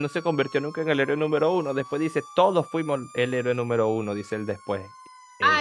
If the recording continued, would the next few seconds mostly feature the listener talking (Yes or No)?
Yes